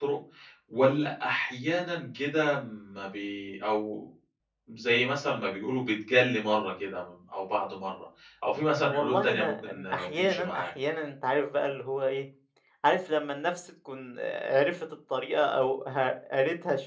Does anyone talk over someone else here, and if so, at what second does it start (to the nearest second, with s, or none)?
9 s